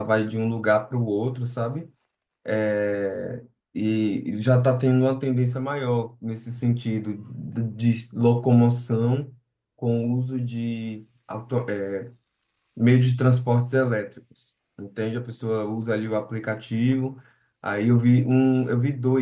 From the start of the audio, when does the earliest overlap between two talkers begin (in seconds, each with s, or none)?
none